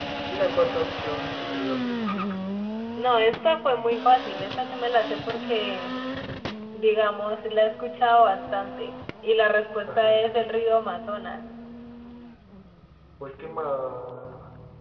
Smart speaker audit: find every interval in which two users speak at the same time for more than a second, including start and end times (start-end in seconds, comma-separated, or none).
none